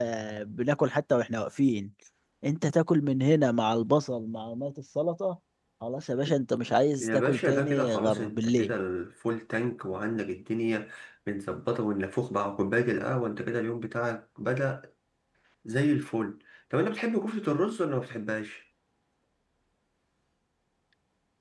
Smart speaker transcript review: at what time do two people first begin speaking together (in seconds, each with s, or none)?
7.0 s